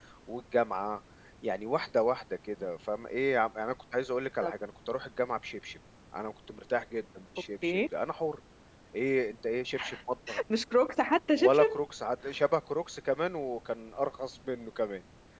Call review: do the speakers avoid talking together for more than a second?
Yes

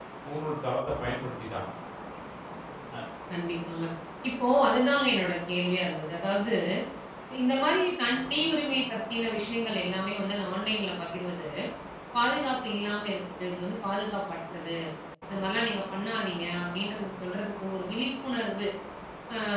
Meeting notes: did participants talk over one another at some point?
No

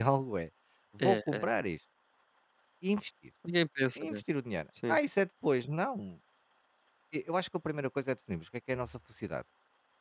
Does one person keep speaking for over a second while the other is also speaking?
No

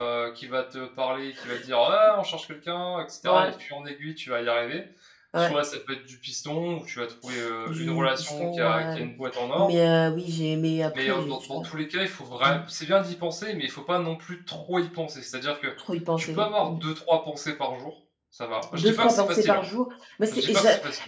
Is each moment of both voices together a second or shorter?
No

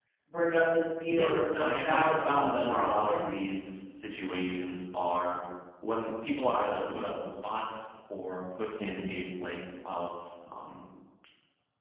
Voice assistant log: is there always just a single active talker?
No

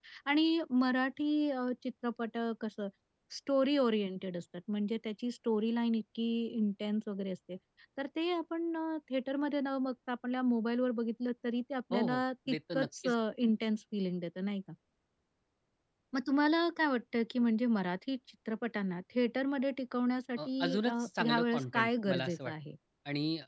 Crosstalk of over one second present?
Yes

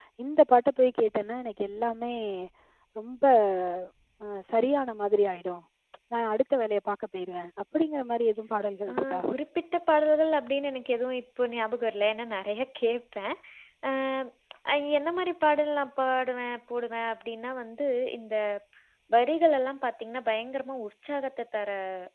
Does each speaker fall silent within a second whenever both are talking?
Yes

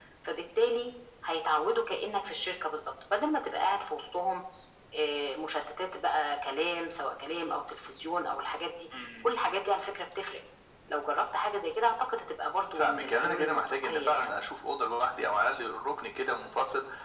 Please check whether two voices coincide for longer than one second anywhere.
Yes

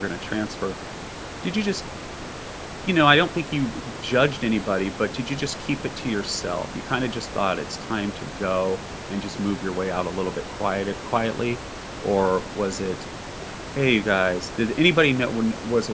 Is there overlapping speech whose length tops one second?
No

